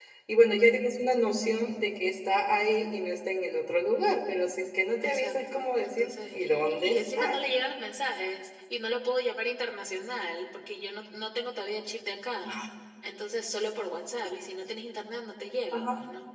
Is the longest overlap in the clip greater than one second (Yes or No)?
Yes